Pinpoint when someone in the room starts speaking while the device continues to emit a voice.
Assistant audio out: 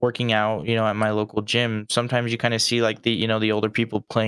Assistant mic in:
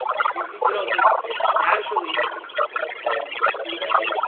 0.3 s

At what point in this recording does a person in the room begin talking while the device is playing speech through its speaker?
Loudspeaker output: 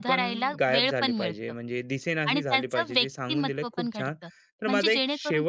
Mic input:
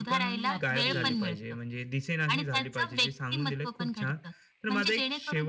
0.5 s

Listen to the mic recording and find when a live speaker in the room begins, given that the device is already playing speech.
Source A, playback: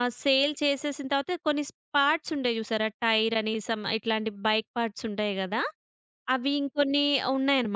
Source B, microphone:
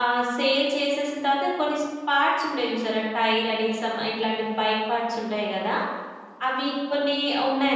none

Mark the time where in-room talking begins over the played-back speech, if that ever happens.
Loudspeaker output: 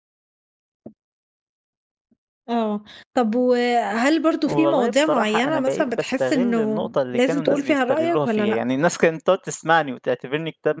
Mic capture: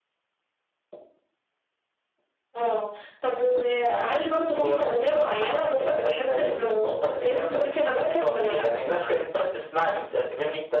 none

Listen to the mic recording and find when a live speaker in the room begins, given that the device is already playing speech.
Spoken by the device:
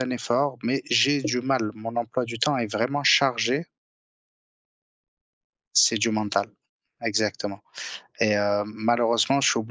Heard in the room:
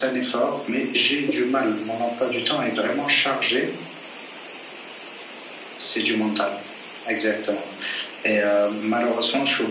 none

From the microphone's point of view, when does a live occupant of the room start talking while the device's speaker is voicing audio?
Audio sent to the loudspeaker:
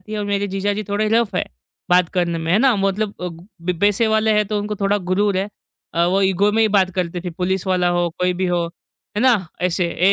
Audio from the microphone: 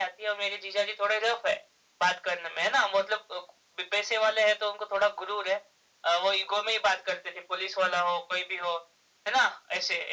none

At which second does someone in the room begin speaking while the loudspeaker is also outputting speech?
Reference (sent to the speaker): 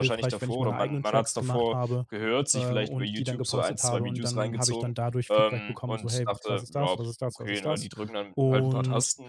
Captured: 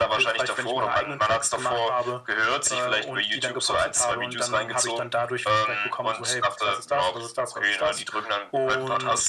none

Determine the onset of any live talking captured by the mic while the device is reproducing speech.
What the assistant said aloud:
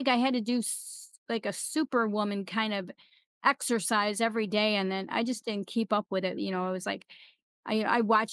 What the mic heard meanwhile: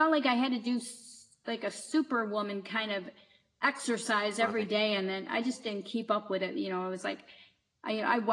4.2 s

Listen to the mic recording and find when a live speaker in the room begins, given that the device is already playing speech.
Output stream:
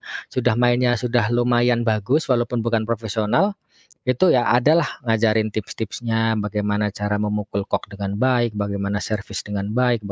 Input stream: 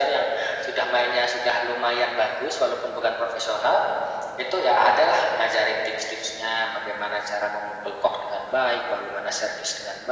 none

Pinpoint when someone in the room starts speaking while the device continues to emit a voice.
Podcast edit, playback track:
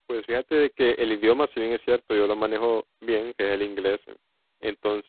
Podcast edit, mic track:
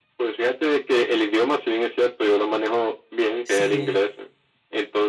3.4 s

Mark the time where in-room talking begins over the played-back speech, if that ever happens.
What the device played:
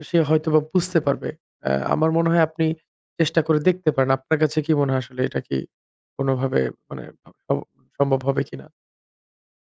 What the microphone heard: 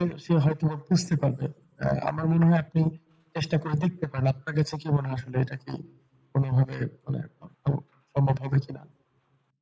none

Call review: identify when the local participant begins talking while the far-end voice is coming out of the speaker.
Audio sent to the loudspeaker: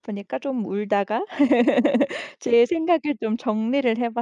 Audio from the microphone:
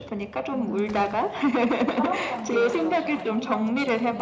0.5 s

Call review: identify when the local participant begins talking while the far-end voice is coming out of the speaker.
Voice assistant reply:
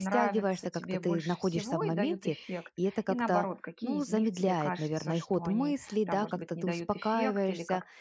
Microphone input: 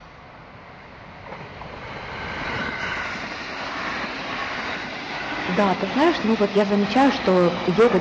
5.5 s

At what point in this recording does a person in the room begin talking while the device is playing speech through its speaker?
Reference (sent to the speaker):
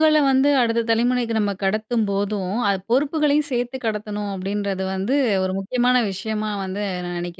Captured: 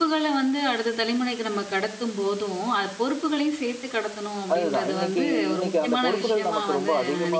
4.5 s

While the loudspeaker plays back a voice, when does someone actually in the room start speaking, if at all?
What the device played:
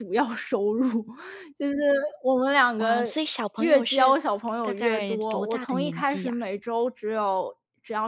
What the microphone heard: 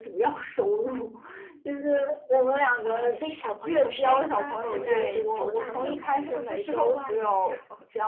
3.8 s

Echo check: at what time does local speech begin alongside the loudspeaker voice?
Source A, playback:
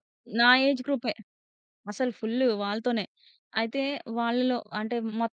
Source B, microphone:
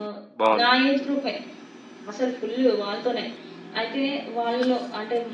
0.4 s

